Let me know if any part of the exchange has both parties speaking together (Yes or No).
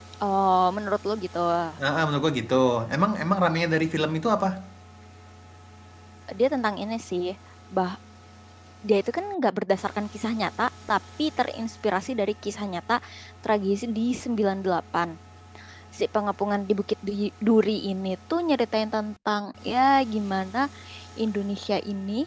No